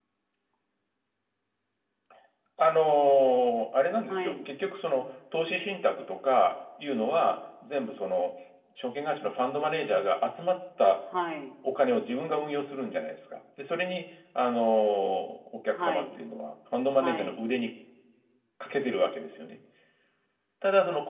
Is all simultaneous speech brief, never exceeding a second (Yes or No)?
Yes